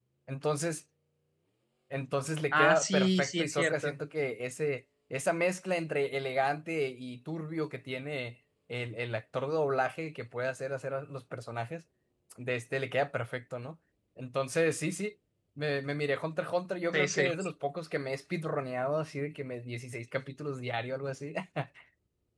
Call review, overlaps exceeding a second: present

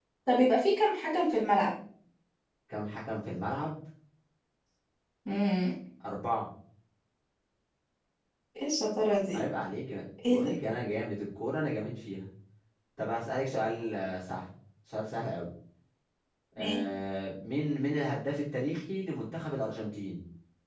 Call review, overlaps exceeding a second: none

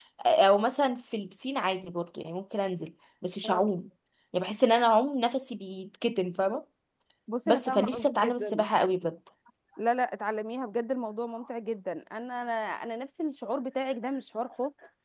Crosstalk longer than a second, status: present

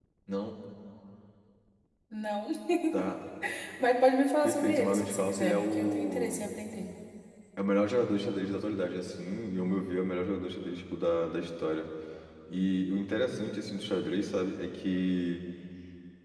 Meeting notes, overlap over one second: present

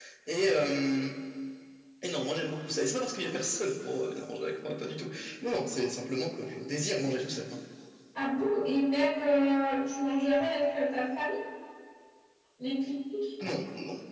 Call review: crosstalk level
none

